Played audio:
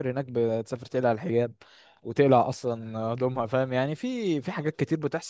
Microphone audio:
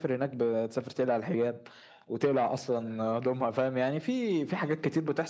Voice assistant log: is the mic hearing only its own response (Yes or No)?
Yes